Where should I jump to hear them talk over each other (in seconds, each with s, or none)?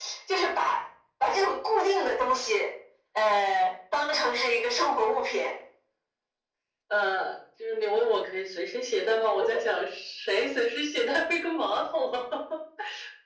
none